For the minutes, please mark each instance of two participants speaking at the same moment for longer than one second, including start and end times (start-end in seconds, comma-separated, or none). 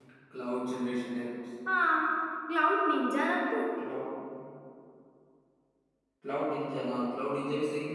none